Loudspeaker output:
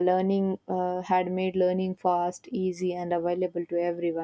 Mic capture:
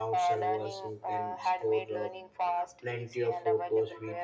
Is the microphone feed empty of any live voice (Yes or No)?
No